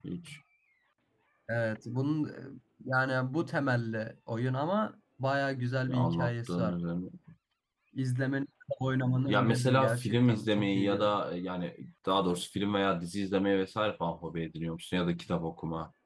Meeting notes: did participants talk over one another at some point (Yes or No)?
Yes